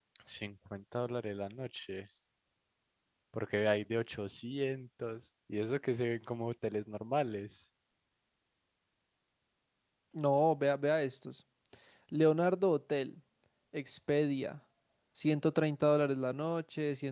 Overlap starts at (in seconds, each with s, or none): none